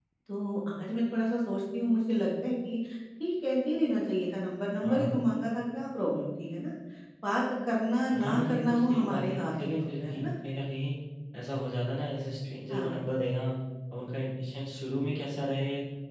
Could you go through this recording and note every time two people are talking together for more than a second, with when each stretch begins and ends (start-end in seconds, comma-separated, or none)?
8.1-10.3